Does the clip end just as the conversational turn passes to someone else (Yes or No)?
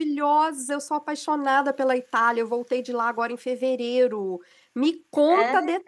No